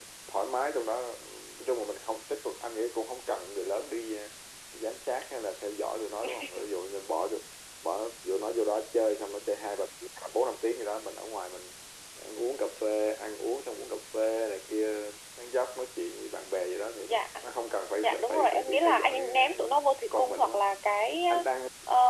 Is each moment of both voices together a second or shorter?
No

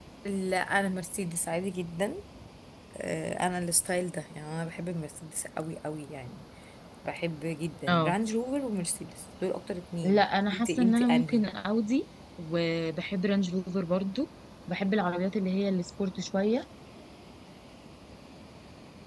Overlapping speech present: Yes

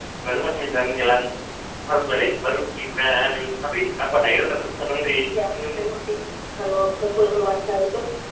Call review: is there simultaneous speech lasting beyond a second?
No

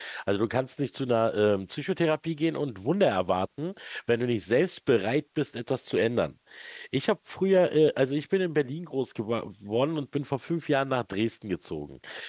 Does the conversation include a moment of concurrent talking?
No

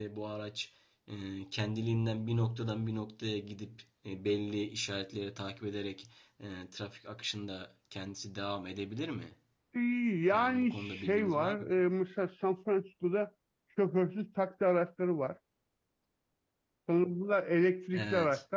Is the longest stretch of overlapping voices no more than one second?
No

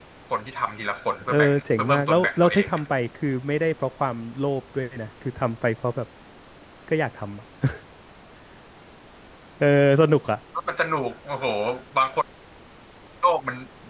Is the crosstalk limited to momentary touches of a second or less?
No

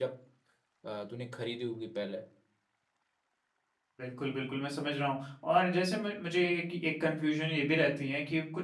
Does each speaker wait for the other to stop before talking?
Yes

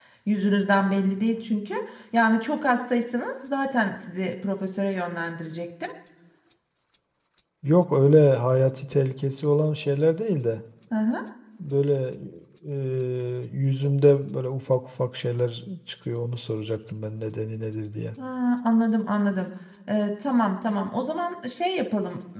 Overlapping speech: No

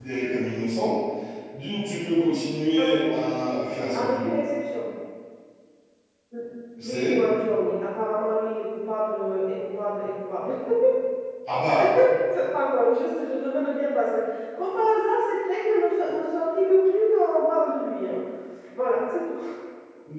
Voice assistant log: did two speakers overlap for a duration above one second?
No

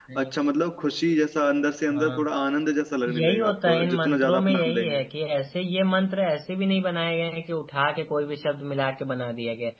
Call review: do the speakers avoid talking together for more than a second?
No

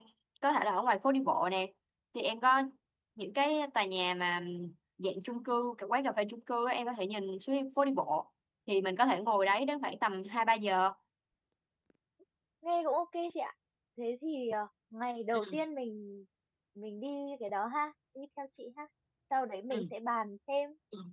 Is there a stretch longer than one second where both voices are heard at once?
No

